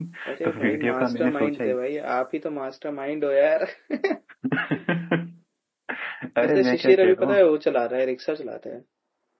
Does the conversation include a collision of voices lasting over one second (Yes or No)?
Yes